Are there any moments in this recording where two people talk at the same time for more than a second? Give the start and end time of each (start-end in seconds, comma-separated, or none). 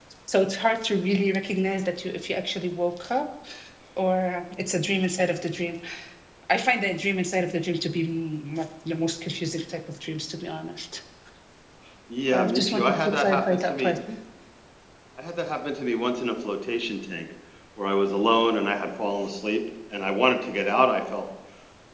12.3-13.9